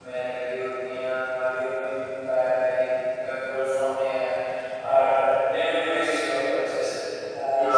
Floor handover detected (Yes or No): Yes